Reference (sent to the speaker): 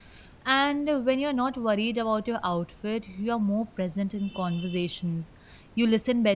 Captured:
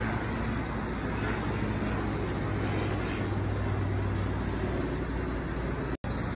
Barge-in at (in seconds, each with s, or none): none